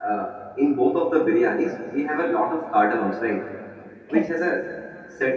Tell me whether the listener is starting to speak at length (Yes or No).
No